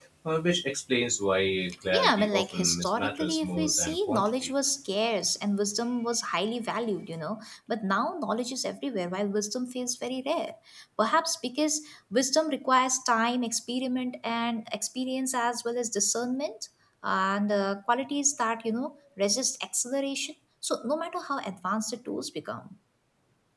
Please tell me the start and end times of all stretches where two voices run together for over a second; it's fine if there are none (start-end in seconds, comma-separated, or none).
1.9-4.5